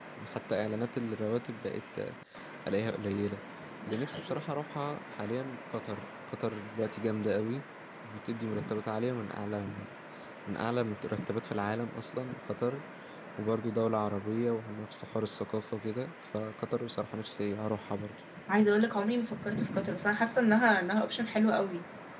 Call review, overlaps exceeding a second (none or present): none